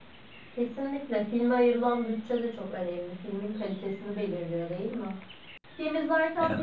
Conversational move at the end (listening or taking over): listening